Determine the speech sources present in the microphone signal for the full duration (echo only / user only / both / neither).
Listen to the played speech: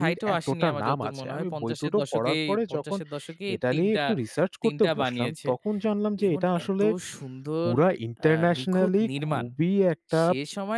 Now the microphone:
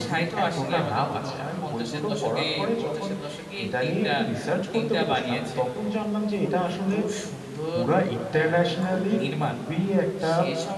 echo only